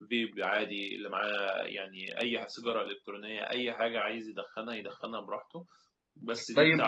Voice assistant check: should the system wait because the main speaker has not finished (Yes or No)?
No